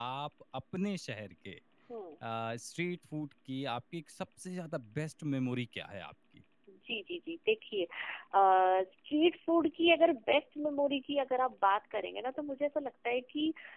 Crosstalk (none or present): none